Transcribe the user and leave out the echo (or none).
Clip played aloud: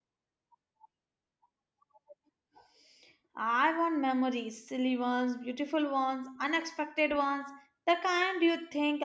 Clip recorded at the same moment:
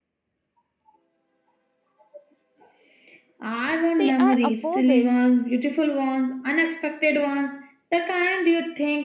they are opposites,